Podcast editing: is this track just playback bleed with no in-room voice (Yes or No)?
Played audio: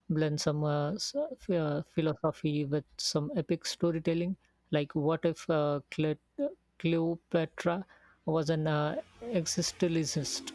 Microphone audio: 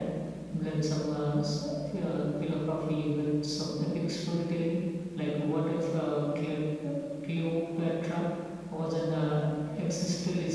Yes